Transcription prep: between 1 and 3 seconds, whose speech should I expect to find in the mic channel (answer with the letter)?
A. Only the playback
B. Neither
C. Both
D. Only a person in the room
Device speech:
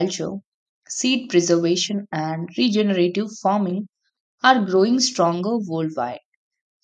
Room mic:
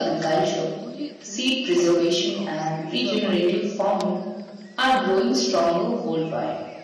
C